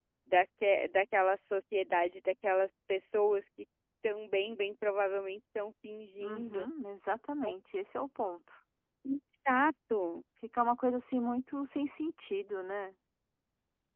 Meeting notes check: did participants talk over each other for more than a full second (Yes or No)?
No